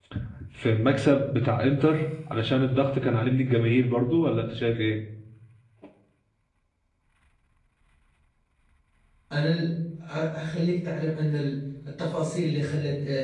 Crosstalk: none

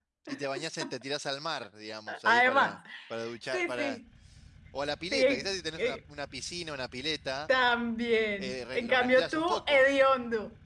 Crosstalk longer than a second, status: present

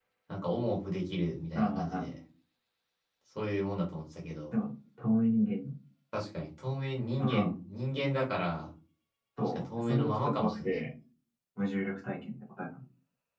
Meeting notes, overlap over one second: present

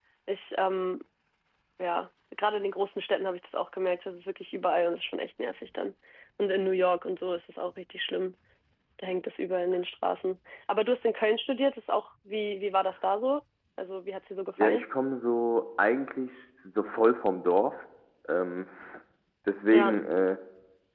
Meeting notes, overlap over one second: none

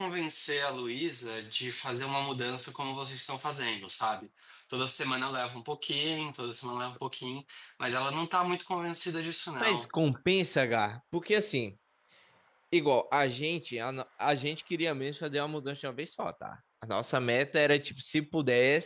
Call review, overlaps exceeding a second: none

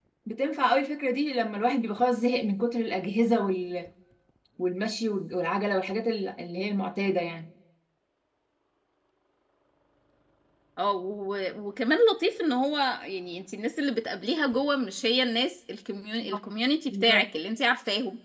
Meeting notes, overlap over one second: none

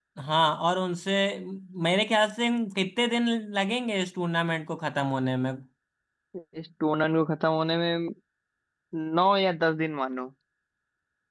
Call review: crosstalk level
none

